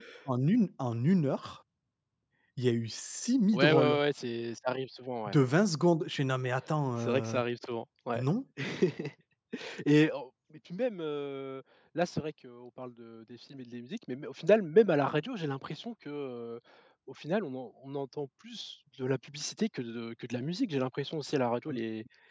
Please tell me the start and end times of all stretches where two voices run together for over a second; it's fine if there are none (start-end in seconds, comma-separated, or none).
none